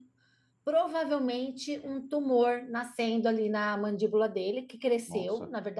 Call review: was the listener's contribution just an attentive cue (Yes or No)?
Yes